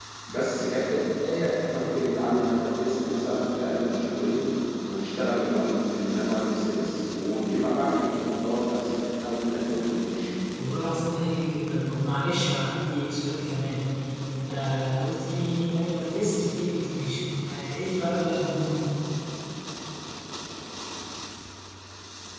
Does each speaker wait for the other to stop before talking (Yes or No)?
Yes